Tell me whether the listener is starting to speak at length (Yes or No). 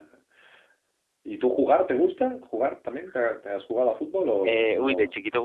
Yes